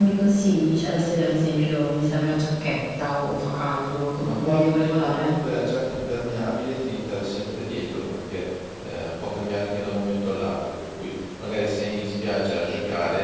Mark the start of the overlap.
4.2 s

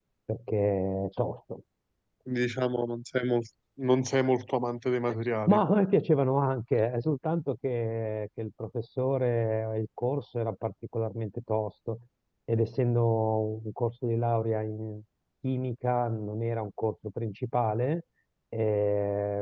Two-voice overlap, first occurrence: none

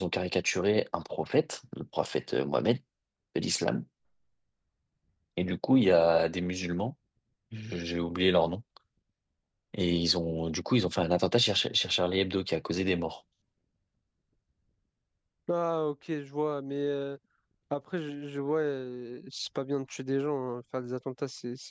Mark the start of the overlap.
none

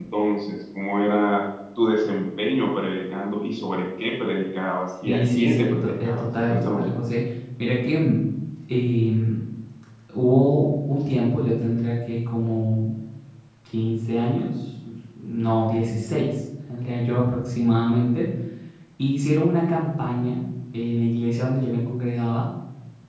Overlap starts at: 5.0 s

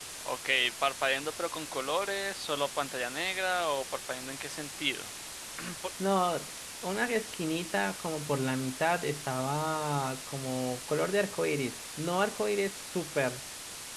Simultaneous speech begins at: none

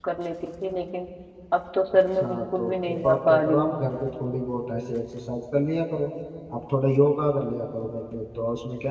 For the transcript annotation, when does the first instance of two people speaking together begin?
2.2 s

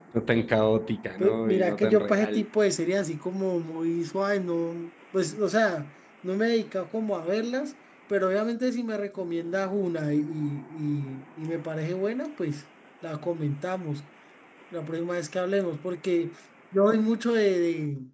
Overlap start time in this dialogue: 1.2 s

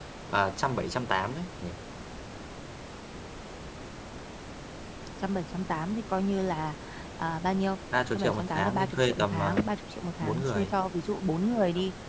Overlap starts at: 8.1 s

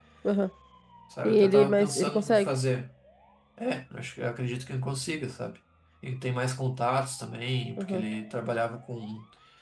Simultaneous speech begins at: 1.2 s

